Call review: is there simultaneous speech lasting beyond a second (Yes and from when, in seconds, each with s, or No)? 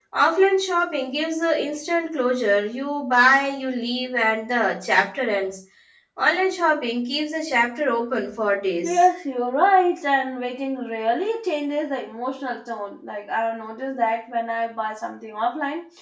No